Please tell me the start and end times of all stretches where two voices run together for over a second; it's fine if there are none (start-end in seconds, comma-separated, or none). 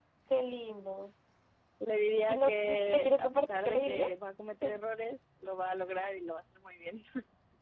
2.3-4.3